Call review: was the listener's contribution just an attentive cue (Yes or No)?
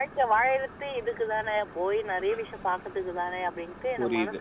No